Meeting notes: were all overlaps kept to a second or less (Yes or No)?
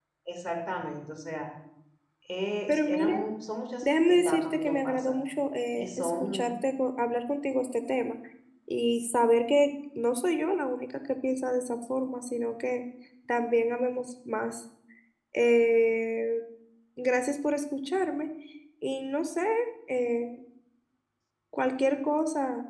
No